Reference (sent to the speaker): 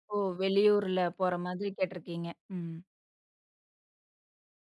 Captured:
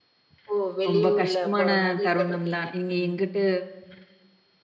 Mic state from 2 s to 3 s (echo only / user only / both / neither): both